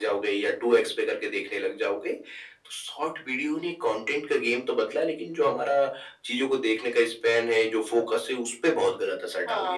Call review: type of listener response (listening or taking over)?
taking over